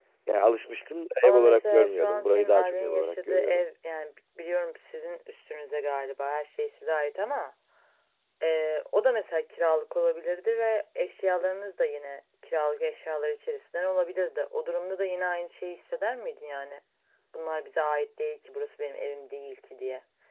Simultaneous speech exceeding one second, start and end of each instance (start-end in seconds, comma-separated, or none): 1.2-3.6